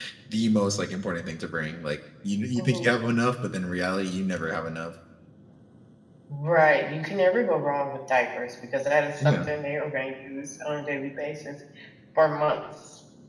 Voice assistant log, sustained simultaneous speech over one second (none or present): none